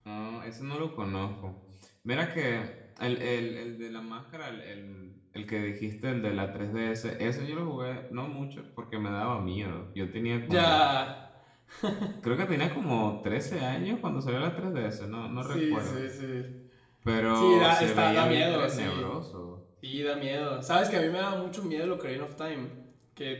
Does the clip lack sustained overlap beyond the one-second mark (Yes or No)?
No